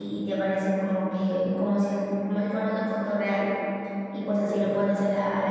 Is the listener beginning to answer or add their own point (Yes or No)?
No